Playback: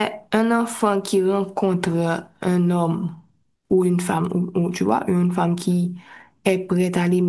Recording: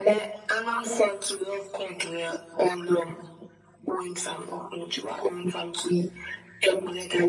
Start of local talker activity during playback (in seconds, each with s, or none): none